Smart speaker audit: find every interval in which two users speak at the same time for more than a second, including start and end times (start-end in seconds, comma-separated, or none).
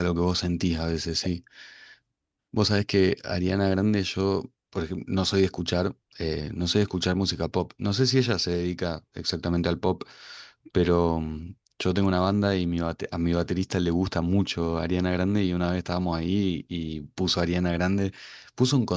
none